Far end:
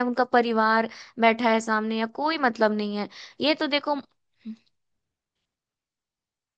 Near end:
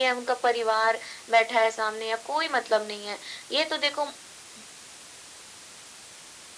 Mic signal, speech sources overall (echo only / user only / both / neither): echo only